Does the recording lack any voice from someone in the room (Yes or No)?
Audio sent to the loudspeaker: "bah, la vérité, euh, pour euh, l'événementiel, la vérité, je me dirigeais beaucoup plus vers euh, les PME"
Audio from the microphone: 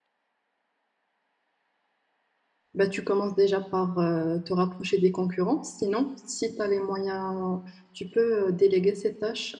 No